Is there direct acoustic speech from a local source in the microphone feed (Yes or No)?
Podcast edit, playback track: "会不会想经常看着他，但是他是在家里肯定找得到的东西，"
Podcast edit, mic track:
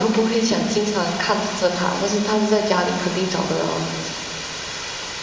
No